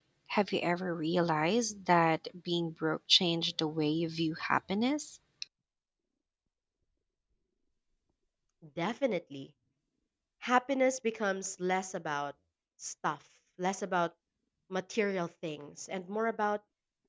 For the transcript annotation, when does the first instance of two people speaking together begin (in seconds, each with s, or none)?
none